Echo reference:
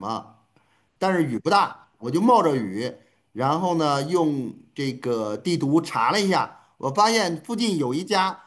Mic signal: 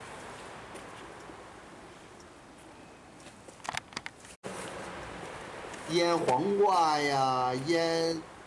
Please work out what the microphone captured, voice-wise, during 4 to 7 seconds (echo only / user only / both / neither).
user only